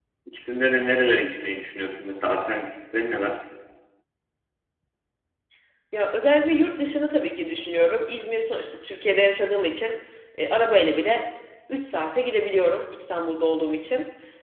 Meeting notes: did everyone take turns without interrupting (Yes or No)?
Yes